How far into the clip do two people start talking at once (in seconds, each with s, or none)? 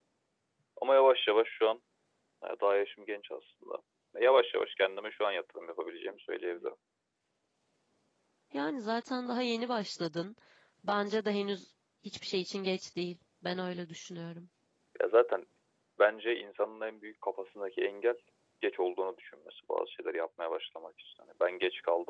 none